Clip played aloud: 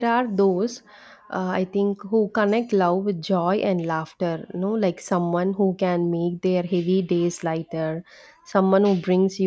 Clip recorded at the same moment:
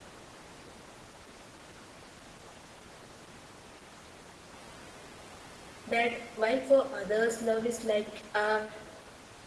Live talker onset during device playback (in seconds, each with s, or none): 5.9 s